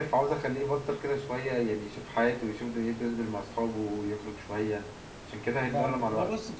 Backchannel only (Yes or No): No